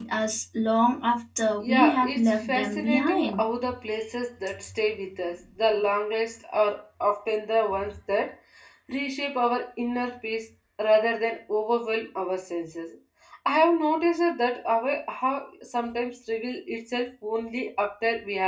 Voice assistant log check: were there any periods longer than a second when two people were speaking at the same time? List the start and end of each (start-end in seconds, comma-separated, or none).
1.6-3.5